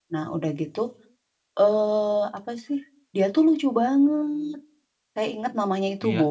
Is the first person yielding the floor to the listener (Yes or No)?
No